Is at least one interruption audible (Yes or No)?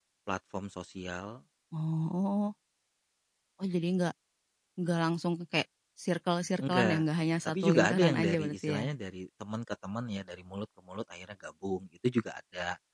Yes